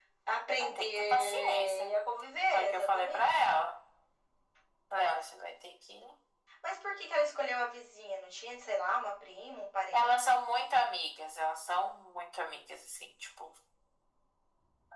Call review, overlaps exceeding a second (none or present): present